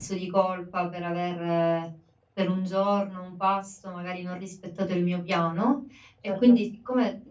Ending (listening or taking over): listening